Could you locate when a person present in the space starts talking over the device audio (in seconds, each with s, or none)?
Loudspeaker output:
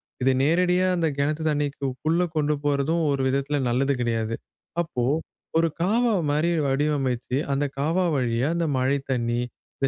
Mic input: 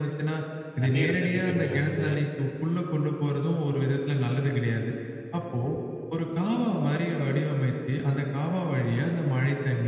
0.8 s